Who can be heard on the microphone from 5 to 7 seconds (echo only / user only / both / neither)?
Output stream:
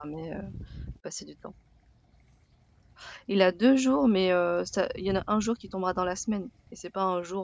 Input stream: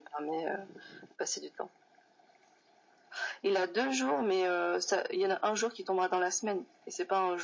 echo only